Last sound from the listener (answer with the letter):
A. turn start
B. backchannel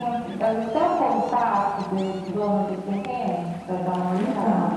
A